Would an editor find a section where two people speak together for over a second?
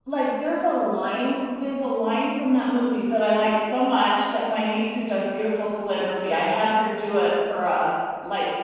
No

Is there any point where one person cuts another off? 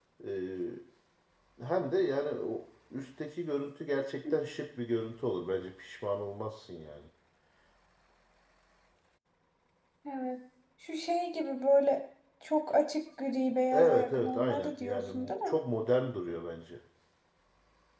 Yes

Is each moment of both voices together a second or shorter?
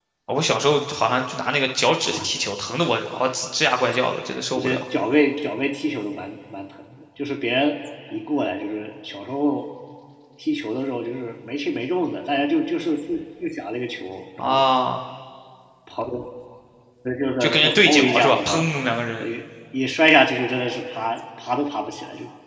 No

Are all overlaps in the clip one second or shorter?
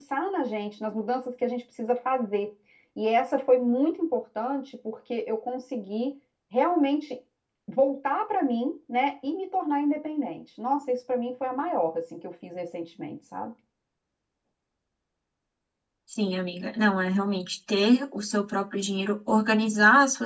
Yes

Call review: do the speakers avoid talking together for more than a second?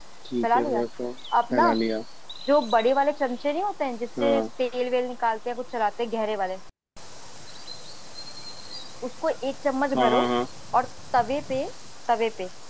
Yes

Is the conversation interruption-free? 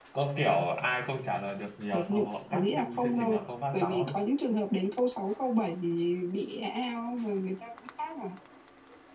No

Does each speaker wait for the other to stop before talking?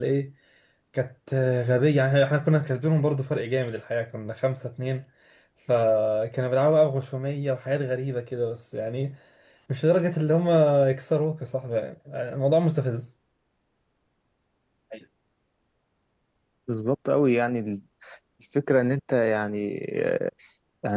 Yes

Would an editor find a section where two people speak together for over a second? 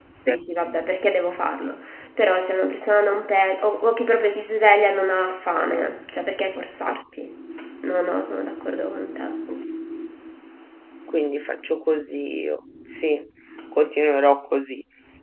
No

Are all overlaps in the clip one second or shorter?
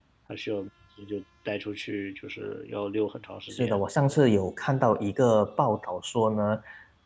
Yes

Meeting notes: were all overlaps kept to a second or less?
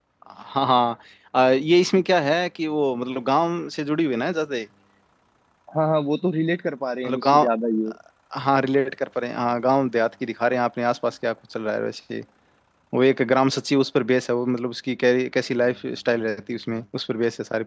Yes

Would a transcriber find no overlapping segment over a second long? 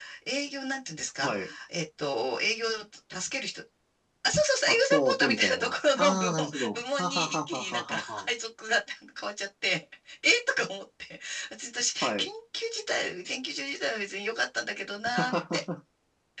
No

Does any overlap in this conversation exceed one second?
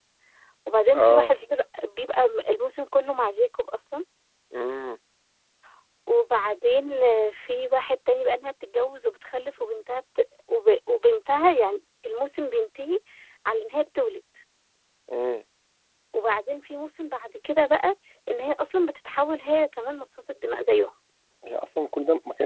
No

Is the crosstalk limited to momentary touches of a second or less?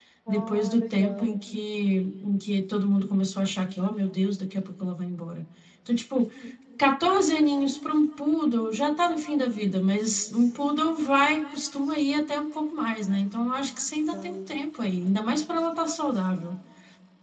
No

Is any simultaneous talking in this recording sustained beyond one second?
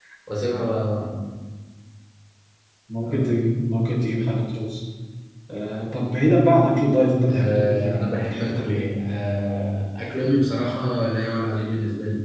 Yes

